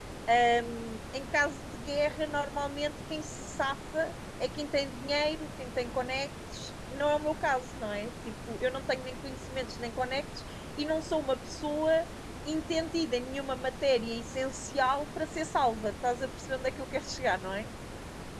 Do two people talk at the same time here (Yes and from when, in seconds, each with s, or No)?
No